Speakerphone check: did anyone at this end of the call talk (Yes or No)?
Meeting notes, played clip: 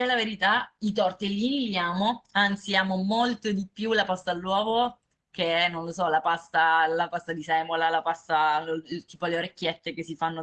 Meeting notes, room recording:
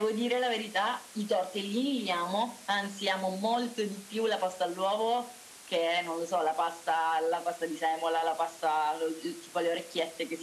No